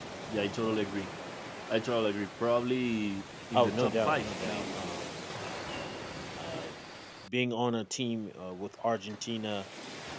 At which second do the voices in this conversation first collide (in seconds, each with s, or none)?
3.5 s